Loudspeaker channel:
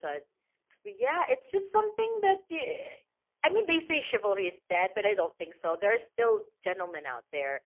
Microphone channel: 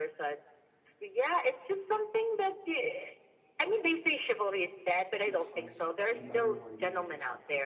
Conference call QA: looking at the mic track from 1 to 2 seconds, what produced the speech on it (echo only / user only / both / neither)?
echo only